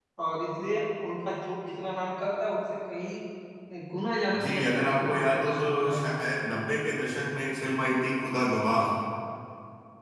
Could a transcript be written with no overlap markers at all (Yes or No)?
No